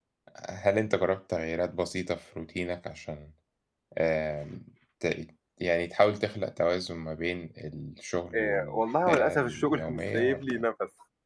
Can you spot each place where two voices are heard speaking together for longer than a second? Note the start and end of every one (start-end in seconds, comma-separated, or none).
8.3-10.7